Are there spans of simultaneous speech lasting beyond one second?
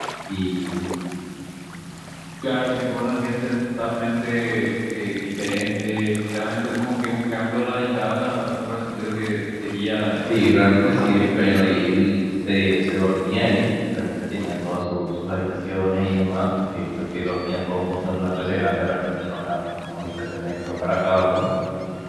Yes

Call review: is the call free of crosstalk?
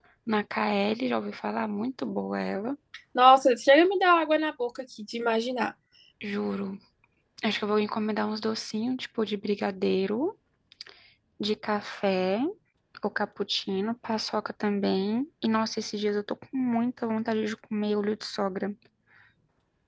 Yes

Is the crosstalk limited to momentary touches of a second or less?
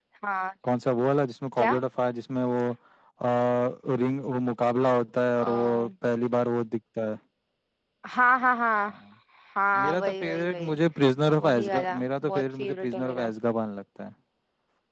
No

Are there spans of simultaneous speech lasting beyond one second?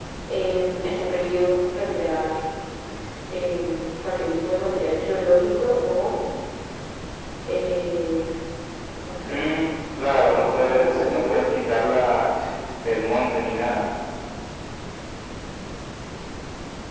Yes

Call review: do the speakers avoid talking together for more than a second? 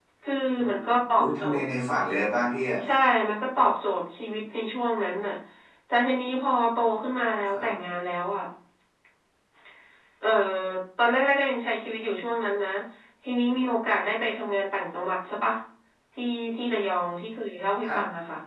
Yes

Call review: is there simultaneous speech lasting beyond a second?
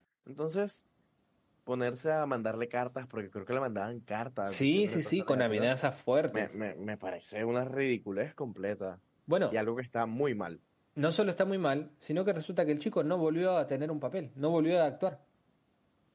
Yes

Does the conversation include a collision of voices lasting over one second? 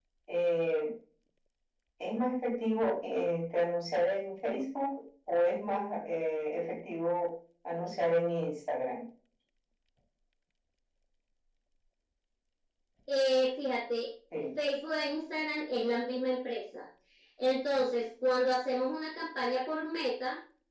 No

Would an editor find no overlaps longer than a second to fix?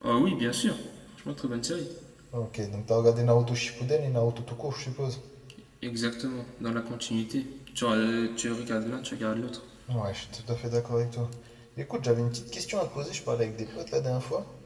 Yes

